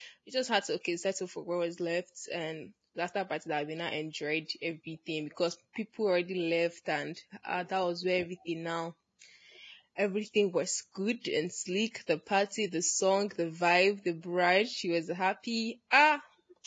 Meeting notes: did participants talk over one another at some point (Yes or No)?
No